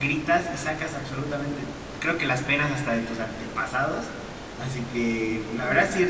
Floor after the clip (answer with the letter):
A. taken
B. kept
B